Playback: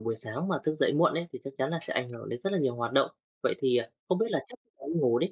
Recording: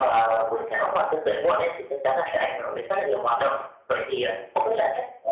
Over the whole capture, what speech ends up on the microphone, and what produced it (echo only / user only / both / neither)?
echo only